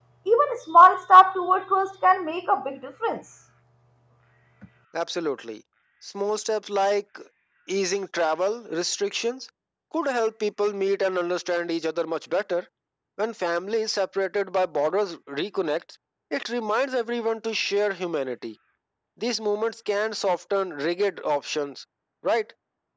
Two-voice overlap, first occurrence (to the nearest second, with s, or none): none